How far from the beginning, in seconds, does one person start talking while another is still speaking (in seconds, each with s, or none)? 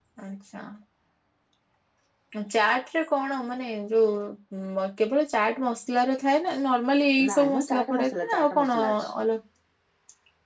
7.2 s